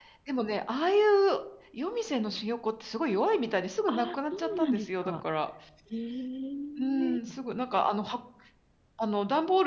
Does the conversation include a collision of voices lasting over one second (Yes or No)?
Yes